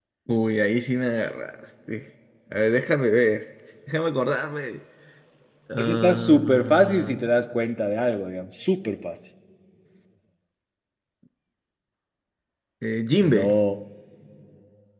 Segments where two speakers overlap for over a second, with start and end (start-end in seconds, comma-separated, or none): 5.8-7.2